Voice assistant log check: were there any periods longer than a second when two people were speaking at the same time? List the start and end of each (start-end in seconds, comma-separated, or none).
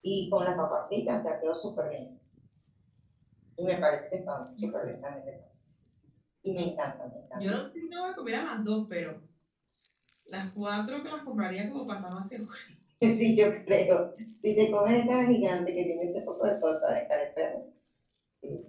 none